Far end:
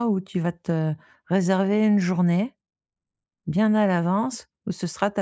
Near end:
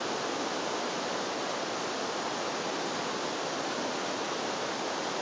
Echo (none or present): none